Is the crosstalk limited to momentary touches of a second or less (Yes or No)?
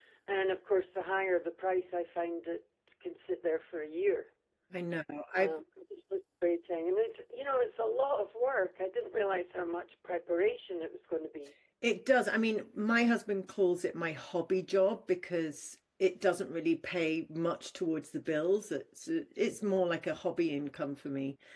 Yes